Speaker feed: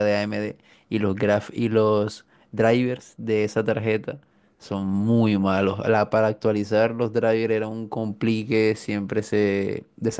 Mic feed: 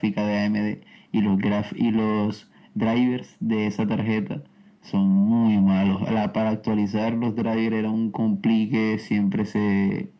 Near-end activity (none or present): none